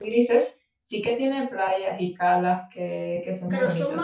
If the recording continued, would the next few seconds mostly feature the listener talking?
Yes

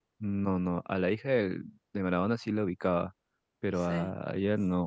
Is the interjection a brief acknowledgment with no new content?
Yes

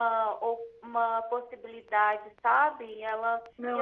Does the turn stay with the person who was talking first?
Yes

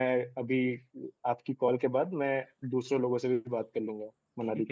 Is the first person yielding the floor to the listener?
Yes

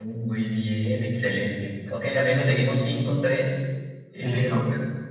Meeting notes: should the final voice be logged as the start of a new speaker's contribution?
Yes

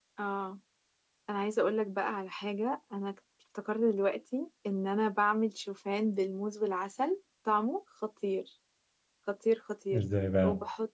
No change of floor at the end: Yes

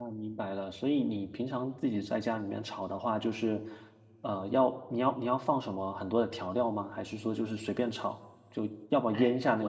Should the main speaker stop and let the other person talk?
Yes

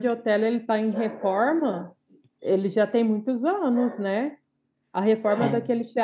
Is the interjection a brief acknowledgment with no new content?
Yes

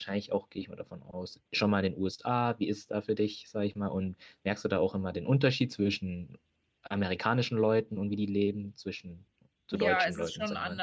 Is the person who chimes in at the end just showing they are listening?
No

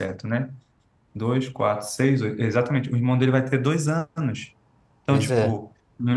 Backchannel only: Yes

